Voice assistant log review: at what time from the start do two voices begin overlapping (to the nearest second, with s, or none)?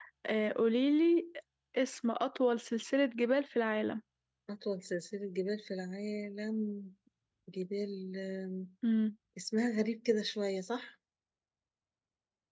none